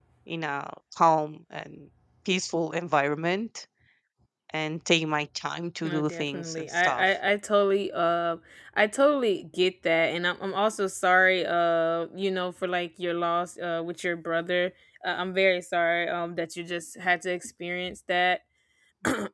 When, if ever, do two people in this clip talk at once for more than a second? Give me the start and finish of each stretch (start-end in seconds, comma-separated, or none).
5.8-7.0